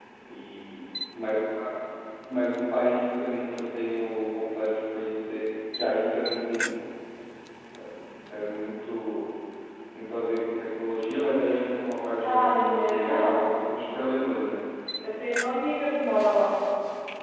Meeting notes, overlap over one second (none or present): present